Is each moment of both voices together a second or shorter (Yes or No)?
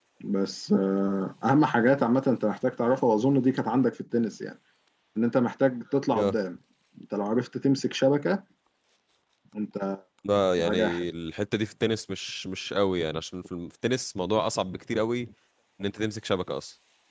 Yes